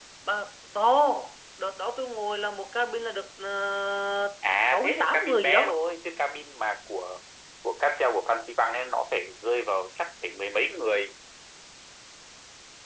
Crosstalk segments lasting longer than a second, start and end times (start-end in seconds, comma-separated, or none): 4.5-5.8